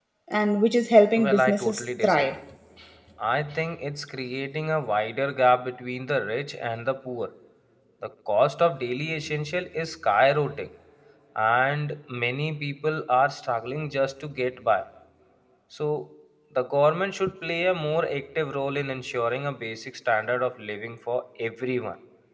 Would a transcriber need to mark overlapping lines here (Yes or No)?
Yes